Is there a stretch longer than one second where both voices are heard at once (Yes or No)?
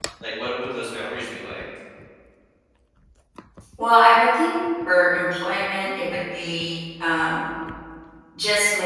No